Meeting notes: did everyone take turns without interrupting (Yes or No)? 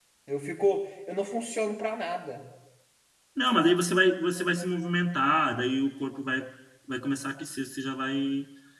Yes